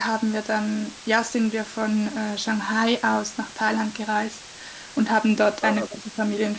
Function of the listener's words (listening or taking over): listening